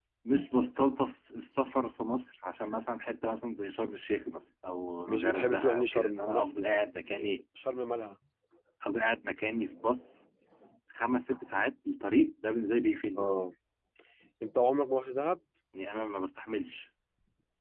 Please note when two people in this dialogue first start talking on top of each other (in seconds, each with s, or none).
5.0 s